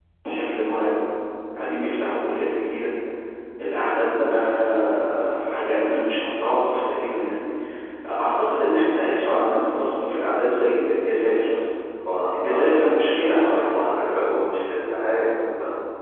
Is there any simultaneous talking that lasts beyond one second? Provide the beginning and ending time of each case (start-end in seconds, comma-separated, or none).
none